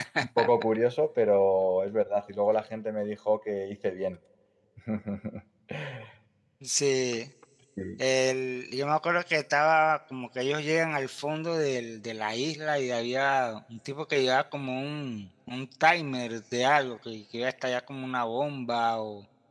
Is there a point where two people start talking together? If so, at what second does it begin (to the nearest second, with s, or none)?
none